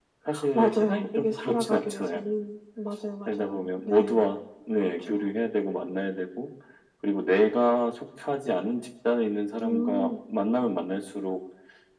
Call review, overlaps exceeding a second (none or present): present